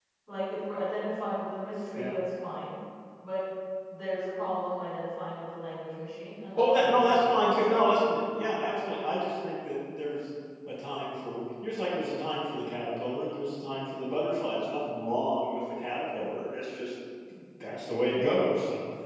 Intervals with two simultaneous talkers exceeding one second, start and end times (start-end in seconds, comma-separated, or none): 6.5-8.2